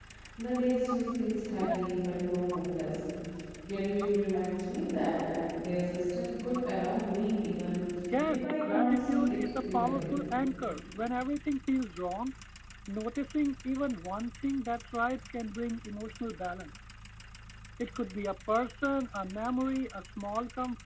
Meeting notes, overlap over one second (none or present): present